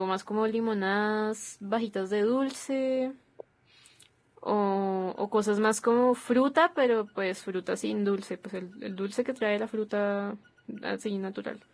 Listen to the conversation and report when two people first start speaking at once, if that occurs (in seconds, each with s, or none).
none